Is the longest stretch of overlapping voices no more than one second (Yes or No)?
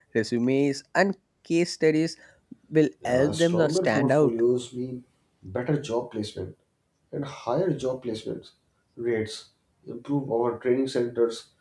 No